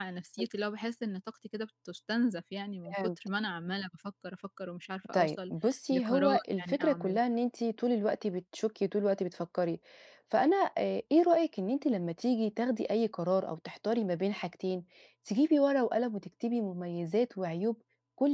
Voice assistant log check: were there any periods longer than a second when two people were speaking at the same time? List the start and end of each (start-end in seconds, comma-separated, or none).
5.9-7.2